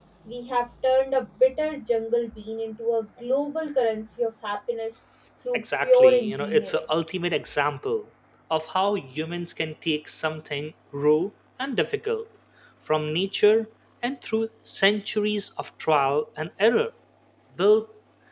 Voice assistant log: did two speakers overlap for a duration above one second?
Yes, from 5.5 s

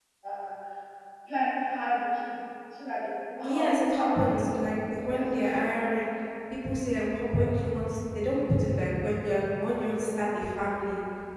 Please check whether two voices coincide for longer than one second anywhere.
Yes, from 3.4 s

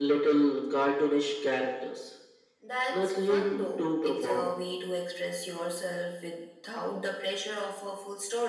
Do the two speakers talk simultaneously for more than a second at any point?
Yes, from 2.9 s

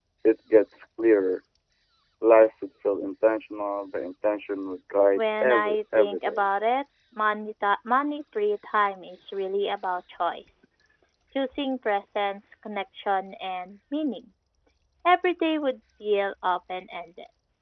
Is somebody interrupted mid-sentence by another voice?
Yes, from 5.2 s

